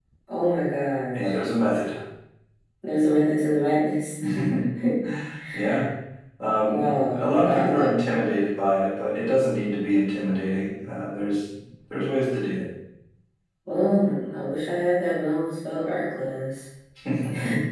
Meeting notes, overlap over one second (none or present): present